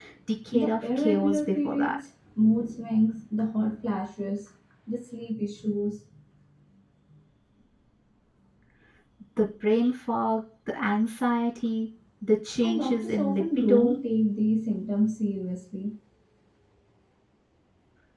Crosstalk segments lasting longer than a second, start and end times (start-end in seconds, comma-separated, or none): 0.5-1.9, 12.6-14.0